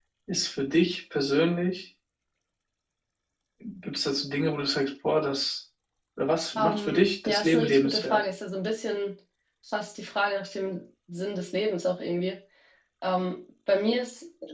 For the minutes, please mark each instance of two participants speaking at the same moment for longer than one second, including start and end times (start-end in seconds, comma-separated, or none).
6.6-8.2